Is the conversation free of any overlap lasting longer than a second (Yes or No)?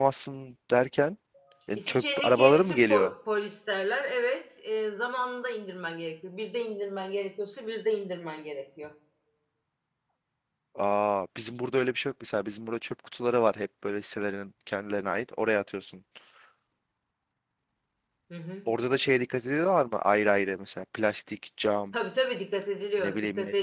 No